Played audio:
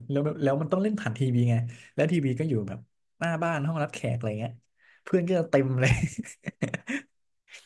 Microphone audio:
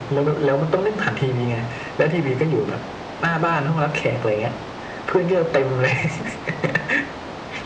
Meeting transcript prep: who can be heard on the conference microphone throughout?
echo only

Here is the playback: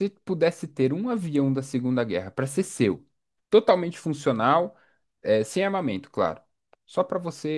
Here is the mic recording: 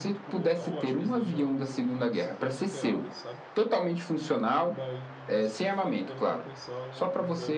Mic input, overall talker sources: both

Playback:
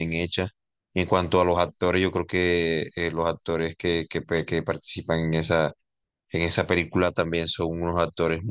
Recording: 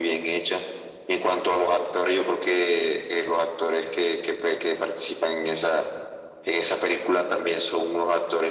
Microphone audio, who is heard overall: echo only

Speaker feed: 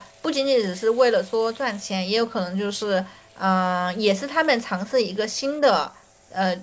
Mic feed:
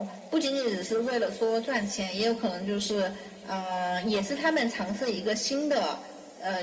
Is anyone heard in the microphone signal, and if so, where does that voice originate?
echo only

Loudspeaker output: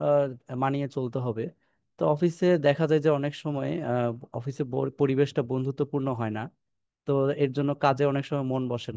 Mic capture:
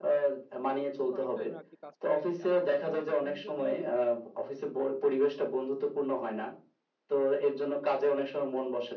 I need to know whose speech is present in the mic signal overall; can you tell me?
both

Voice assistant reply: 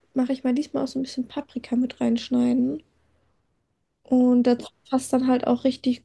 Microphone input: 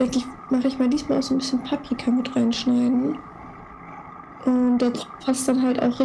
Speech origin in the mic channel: echo only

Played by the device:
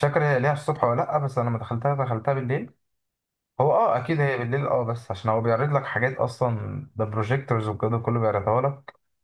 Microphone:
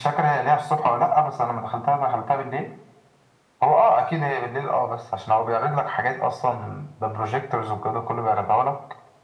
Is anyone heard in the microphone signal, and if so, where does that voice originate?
echo only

